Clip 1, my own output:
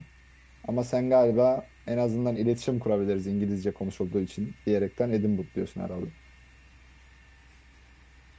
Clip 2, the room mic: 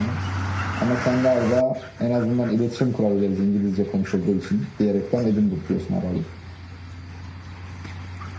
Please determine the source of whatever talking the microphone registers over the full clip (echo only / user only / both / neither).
echo only